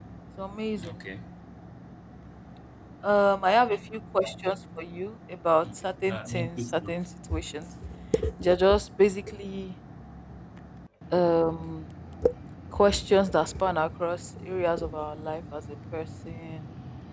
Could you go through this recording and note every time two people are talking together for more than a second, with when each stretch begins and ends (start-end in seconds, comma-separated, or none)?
5.7-7.0